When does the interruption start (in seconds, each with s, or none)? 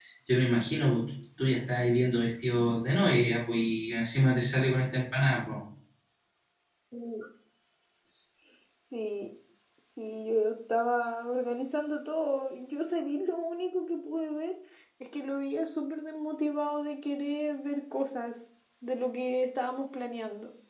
none